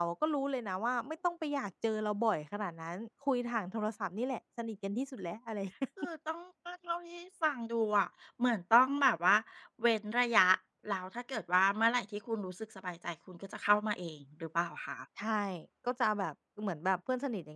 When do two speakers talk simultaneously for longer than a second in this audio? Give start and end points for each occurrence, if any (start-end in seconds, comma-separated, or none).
none